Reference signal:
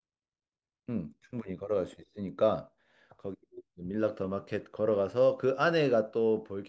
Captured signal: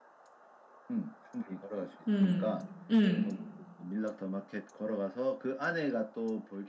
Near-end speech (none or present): present